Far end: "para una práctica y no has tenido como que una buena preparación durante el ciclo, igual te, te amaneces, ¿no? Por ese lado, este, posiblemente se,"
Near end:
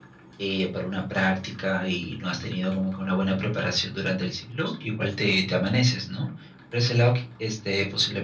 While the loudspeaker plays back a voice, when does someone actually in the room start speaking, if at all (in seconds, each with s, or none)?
none